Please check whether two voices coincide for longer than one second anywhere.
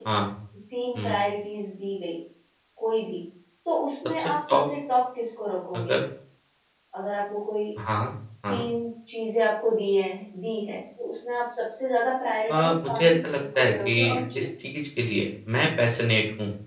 Yes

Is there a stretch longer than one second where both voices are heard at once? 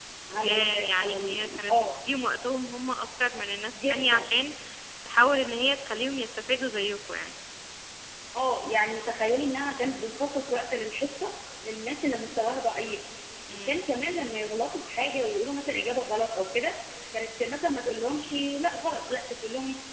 Yes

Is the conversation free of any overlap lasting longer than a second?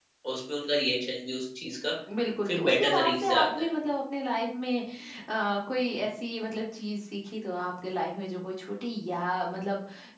No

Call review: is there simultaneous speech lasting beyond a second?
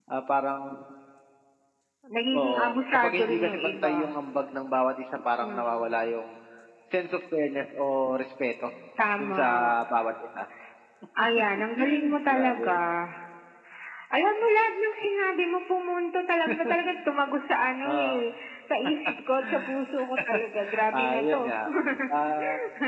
Yes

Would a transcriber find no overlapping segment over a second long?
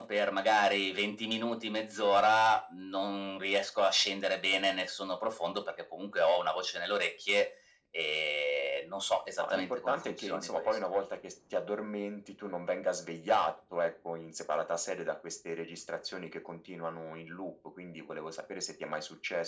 No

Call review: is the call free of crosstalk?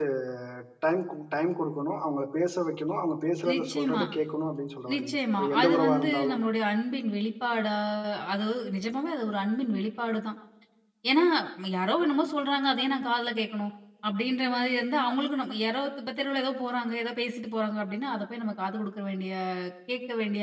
No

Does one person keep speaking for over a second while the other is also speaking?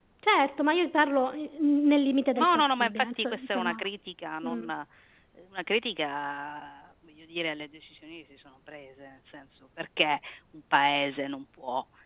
Yes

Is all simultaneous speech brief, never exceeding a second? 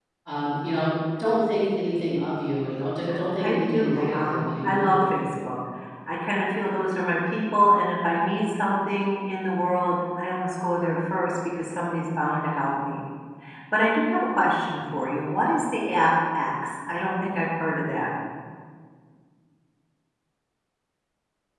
No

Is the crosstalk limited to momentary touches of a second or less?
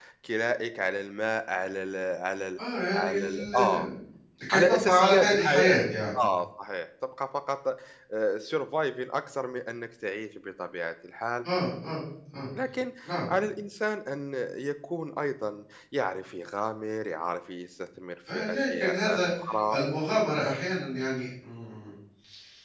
No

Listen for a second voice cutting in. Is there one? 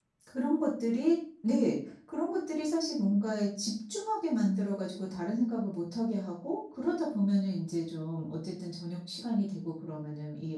No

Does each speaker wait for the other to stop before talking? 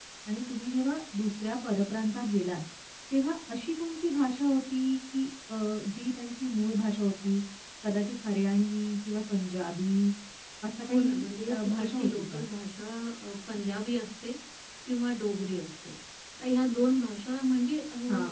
No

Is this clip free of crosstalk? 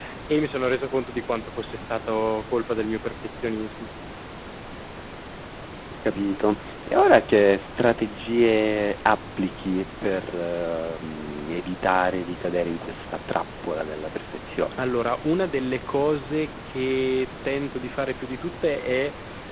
Yes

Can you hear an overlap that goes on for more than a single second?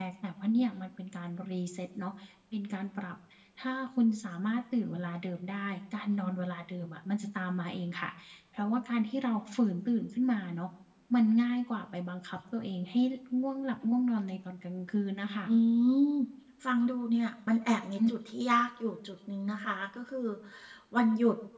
No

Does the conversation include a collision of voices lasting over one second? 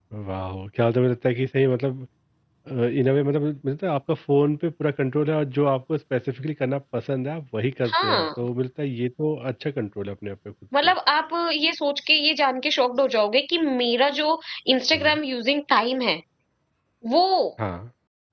No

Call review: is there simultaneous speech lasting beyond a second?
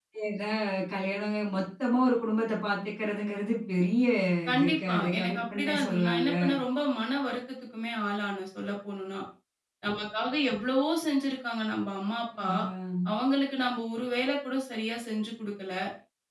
Yes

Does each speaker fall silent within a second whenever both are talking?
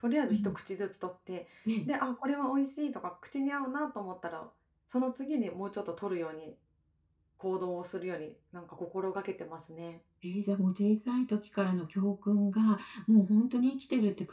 Yes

